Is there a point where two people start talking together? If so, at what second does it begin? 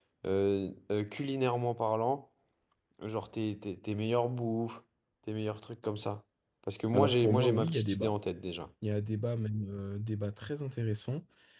6.9 s

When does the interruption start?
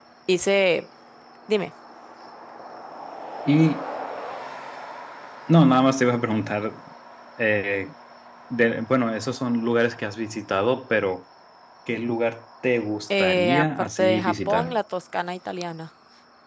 13.1 s

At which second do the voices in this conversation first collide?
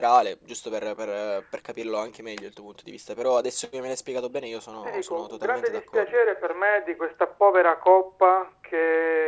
4.8 s

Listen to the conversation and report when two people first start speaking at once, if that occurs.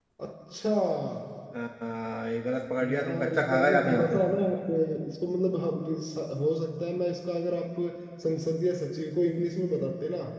2.8 s

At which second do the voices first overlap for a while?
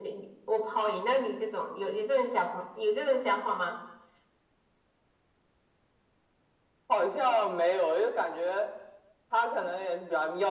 none

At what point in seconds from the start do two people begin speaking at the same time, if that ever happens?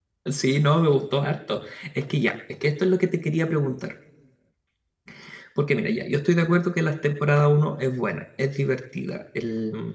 none

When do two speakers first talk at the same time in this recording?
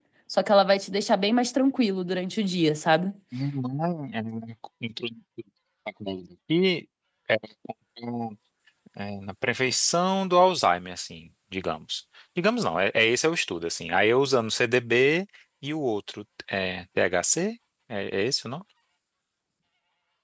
none

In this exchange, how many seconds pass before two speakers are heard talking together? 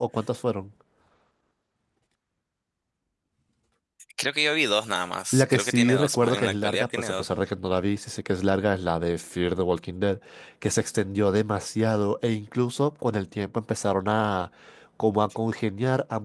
5.3 s

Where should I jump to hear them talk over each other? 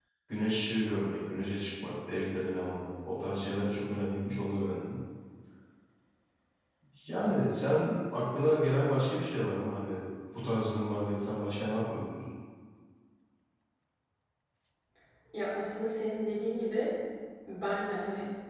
none

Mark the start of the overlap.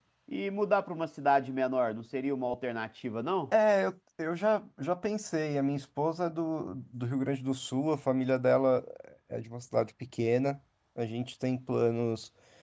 none

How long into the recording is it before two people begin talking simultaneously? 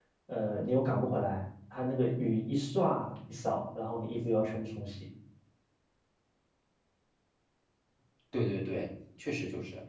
none

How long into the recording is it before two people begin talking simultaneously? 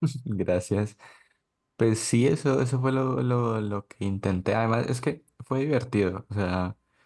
none

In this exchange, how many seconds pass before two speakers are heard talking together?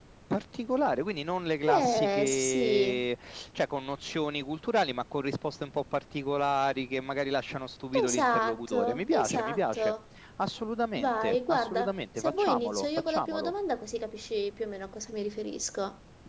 1.7 s

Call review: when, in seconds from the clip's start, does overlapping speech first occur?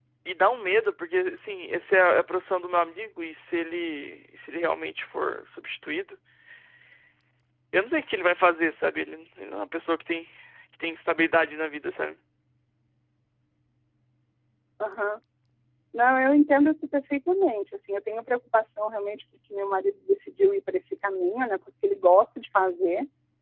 none

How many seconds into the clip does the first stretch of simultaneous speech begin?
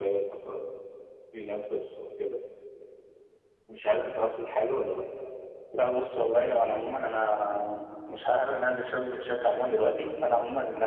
none

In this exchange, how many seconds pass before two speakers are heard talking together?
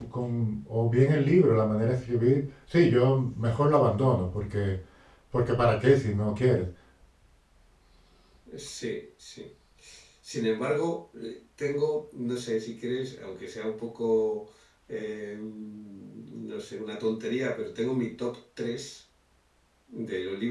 none

